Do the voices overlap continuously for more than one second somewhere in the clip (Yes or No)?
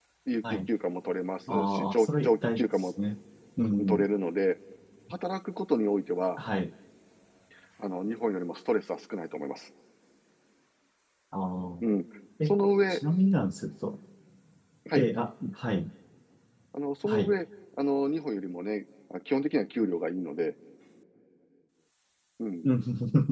Yes